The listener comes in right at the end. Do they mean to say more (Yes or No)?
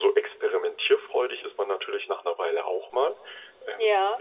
No